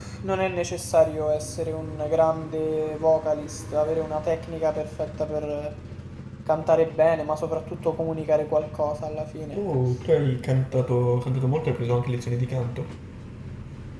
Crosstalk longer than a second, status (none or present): none